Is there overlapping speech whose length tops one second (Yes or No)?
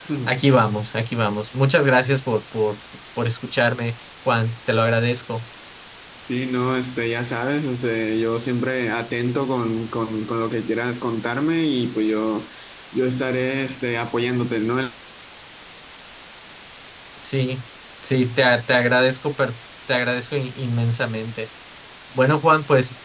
No